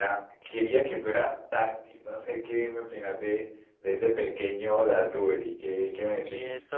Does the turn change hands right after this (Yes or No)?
Yes